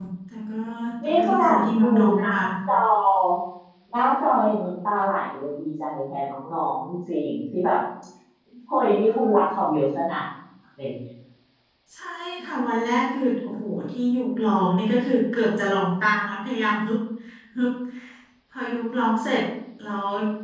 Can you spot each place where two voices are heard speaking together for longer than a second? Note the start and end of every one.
1.1-2.3

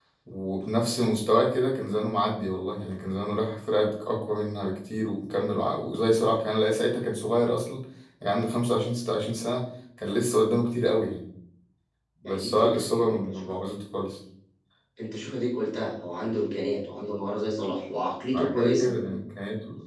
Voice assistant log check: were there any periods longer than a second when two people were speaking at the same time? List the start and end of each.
12.2-13.5

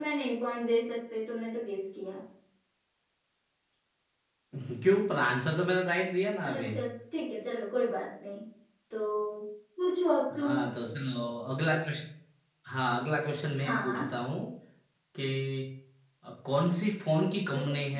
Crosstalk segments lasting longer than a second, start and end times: none

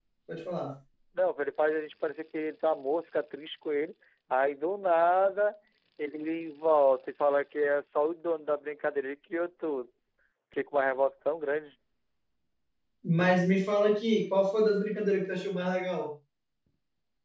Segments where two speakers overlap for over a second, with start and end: none

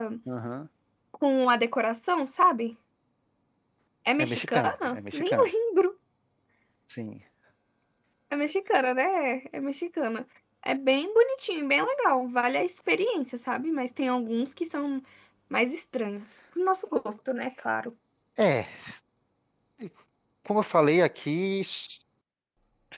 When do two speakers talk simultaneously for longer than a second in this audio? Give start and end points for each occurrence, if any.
4.2-5.5

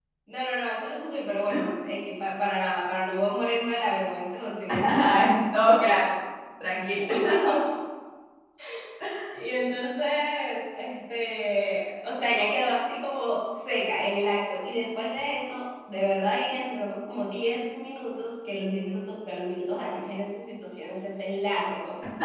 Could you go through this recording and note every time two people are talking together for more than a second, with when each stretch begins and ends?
4.8-6.1

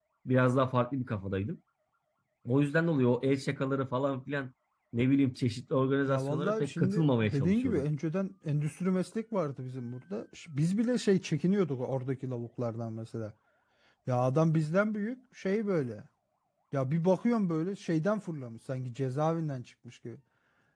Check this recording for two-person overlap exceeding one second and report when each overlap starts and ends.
6.1-7.8

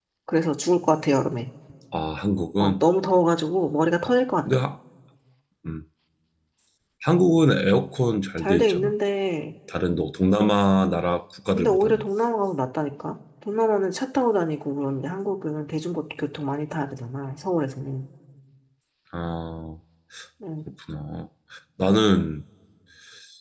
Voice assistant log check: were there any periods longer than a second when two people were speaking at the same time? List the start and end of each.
none

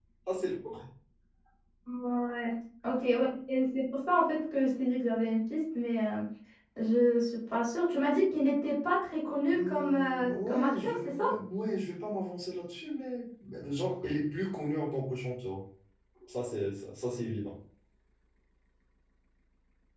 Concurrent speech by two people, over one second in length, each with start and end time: 9.5-11.2

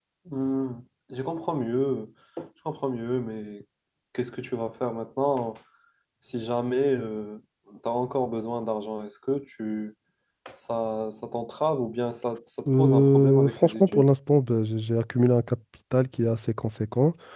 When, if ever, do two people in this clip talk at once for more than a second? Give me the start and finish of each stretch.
12.7-14.1

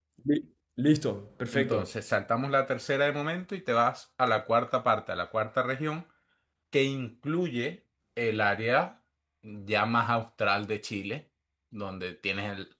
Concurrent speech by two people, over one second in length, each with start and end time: none

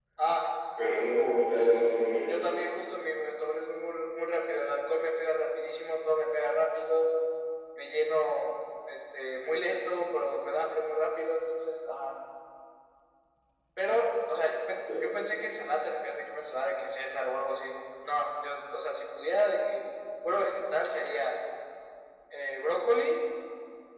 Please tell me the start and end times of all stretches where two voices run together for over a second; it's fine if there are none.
none

